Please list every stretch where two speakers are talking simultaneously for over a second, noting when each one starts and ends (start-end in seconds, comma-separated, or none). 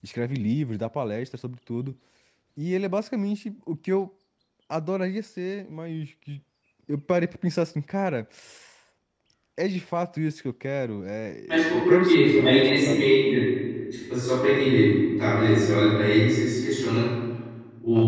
11.7-13.1